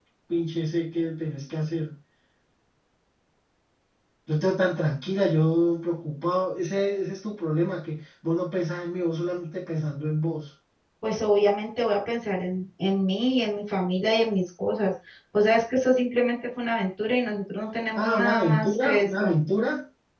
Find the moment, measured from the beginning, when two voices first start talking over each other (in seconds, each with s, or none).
18.0 s